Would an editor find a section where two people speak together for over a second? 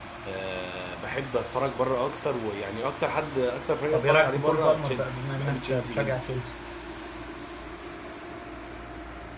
Yes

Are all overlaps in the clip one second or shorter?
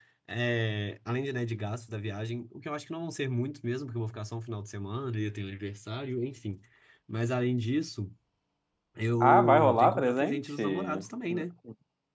No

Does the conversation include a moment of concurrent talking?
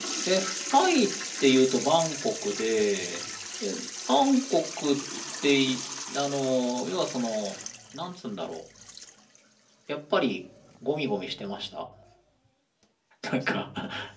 No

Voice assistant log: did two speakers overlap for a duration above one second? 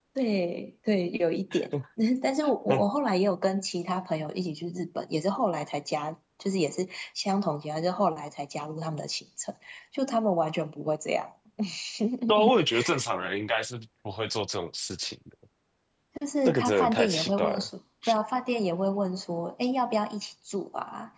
Yes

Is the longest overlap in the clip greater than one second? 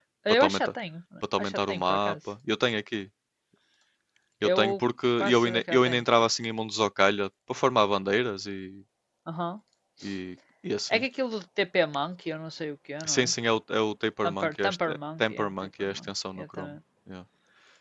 Yes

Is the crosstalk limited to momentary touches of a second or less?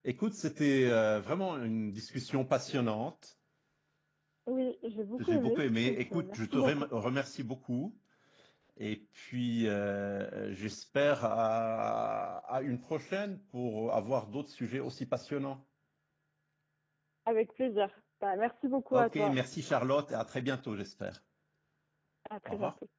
No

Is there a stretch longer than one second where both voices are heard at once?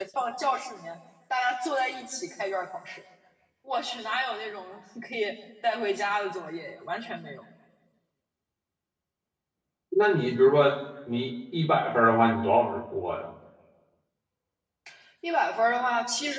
No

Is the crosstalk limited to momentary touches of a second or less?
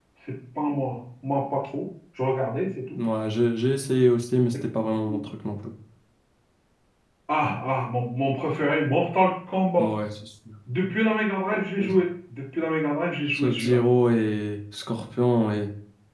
Yes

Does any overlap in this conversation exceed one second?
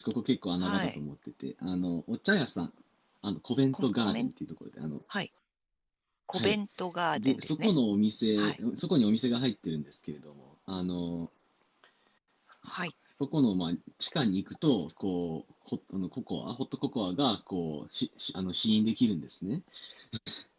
No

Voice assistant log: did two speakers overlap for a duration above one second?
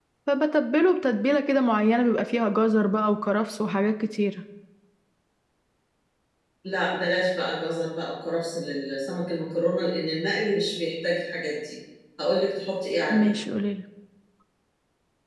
No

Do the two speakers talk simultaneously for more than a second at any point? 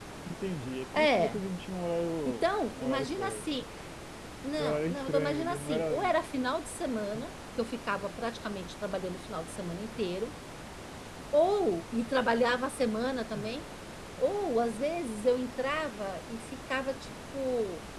Yes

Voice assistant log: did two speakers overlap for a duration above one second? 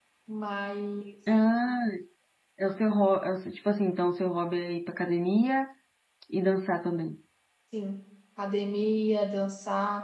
No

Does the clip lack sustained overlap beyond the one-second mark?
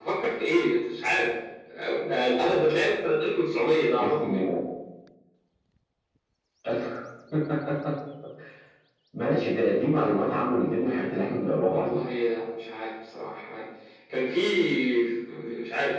Yes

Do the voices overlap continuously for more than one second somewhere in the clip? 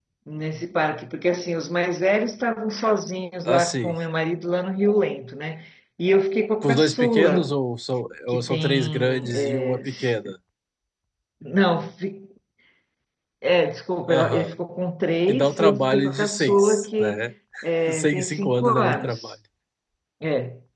Yes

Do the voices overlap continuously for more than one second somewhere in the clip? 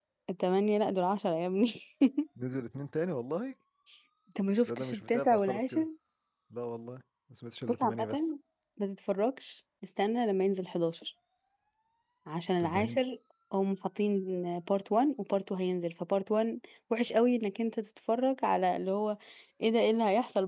Yes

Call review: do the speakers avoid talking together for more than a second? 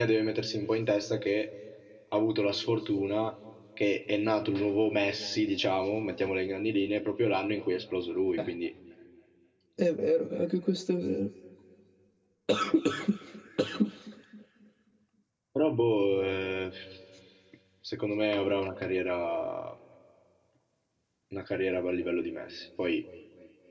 Yes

